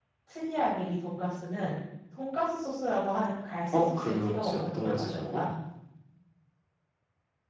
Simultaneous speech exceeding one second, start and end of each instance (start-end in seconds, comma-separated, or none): 3.7-5.4